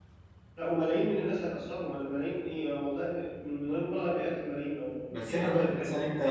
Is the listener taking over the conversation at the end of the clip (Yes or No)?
Yes